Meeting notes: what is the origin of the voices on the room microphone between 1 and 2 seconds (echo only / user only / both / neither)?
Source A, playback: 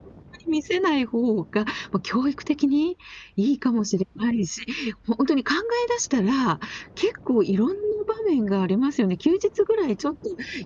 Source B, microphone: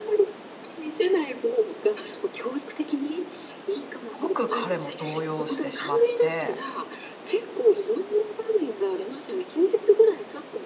echo only